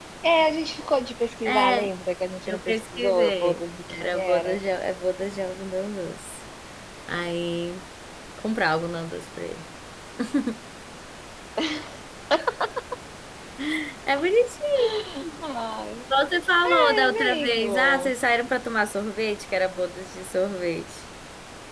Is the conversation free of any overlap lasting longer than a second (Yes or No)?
No